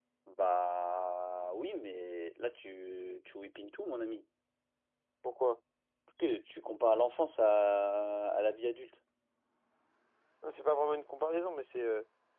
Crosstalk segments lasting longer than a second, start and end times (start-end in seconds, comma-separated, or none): none